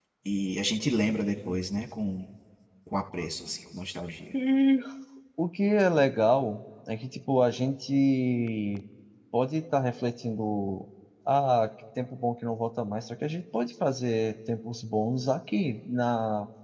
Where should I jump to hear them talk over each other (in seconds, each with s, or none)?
none